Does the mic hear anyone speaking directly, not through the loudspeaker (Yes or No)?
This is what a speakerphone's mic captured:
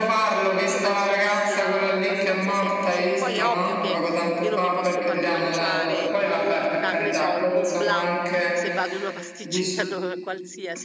Yes